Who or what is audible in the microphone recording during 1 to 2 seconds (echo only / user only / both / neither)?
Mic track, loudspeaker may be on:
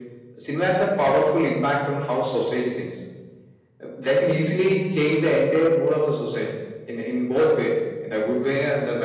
echo only